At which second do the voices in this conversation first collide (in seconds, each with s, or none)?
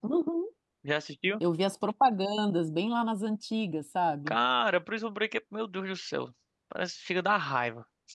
none